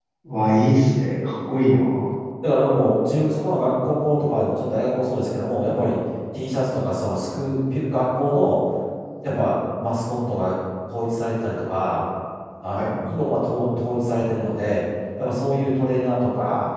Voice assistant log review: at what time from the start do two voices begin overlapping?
none

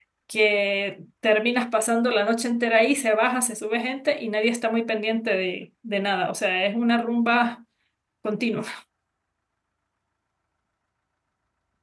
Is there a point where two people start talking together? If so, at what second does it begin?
none

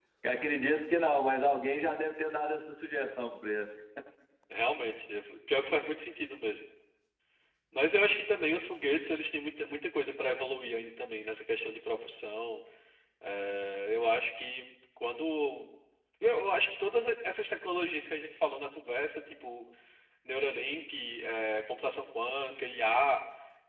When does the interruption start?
none

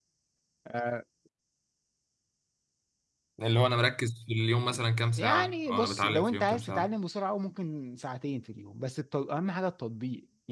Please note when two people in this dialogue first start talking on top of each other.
5 s

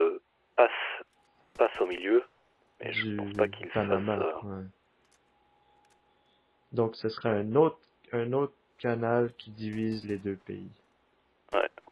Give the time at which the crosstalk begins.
3 s

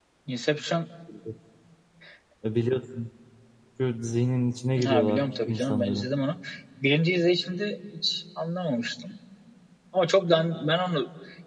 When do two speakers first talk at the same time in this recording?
5 s

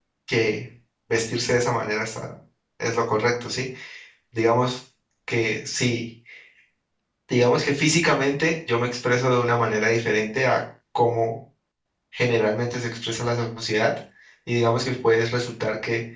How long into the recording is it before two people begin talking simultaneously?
none

